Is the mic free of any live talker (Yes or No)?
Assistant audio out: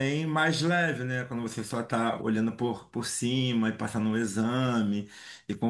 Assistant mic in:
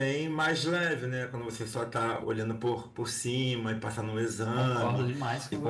No